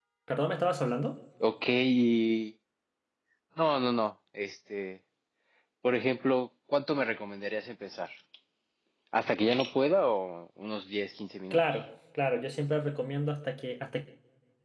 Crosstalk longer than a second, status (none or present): none